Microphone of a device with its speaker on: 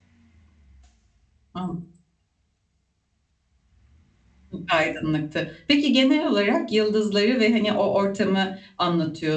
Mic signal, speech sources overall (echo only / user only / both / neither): user only